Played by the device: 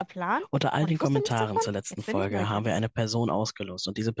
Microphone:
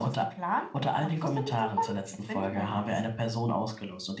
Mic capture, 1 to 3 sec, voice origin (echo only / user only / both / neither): echo only